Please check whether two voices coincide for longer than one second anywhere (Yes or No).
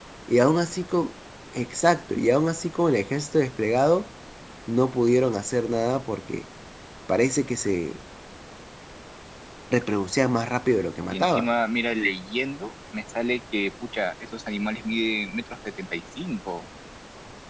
No